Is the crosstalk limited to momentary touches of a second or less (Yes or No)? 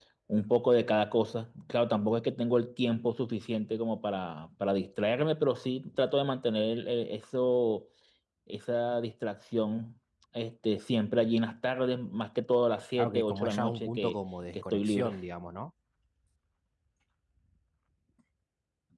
No